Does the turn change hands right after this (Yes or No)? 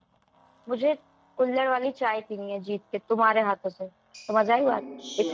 Yes